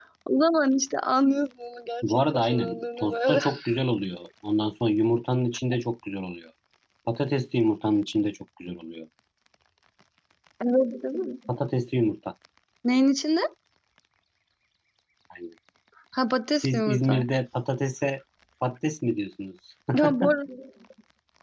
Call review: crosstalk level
present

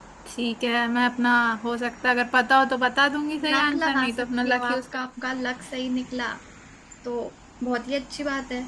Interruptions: present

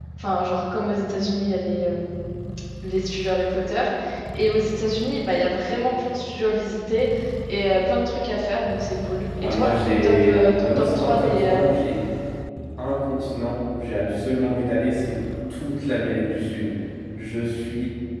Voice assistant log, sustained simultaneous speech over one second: present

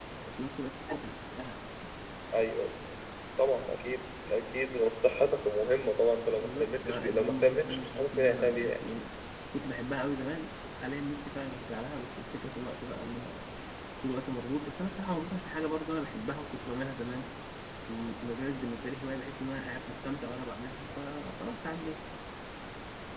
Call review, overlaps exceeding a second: present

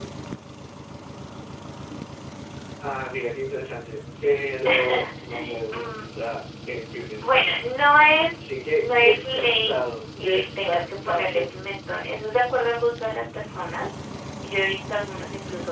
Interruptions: present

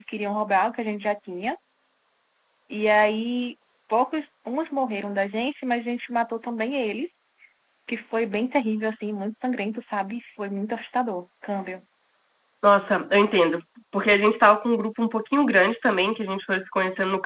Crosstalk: none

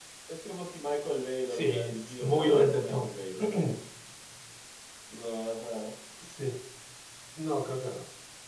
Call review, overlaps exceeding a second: present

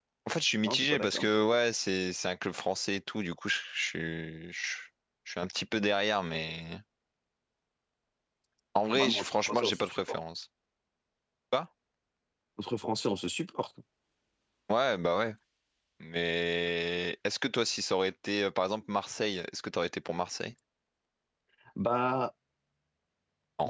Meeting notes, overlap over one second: present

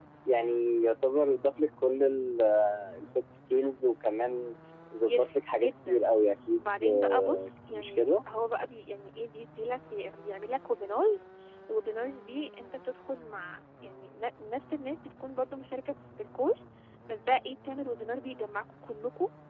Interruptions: present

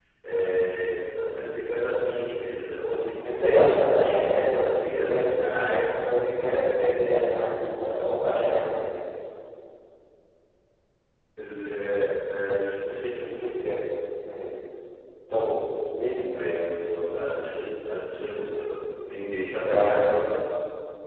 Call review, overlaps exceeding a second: present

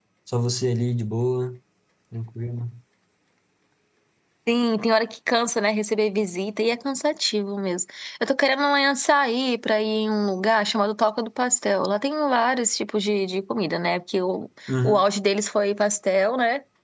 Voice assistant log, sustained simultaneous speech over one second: none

